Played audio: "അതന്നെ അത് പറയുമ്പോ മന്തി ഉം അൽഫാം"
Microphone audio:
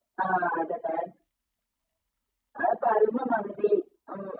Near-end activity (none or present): none